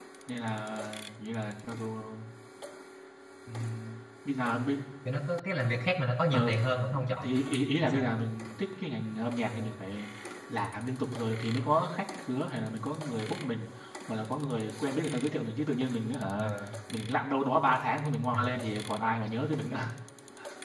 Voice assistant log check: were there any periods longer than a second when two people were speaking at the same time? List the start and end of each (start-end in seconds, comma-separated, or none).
none